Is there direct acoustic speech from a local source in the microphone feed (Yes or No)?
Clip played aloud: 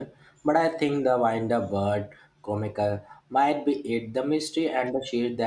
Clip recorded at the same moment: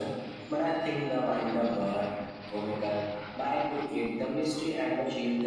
No